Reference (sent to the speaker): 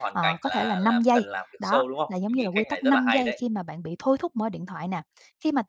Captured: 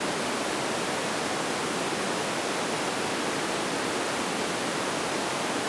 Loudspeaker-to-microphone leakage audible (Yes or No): No